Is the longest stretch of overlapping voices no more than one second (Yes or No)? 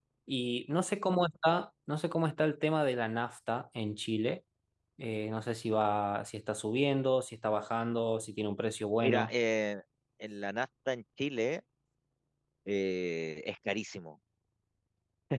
Yes